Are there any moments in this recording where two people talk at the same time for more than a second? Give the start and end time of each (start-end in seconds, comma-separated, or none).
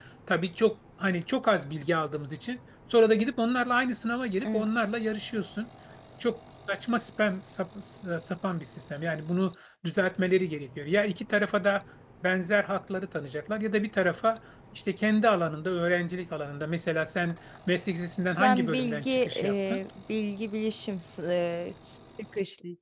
18.4-19.8